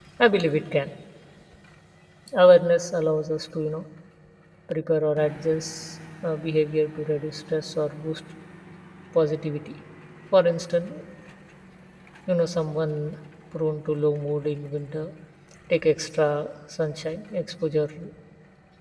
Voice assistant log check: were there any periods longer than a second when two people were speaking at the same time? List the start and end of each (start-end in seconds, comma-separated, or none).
none